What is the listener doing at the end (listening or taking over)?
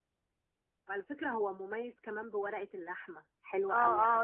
taking over